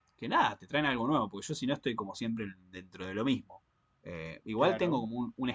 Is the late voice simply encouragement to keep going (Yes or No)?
Yes